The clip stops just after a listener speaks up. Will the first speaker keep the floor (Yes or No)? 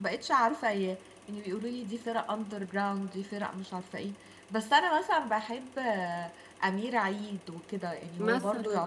Yes